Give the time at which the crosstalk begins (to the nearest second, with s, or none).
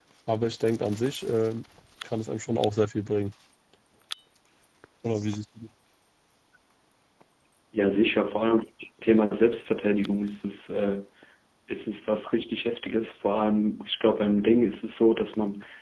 none